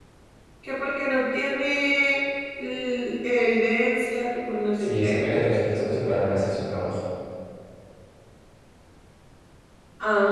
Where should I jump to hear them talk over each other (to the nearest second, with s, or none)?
5 s